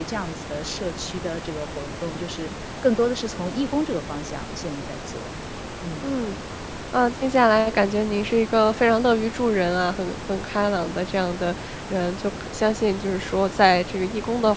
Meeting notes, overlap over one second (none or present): none